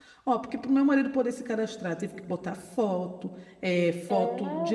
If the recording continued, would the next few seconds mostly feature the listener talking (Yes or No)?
No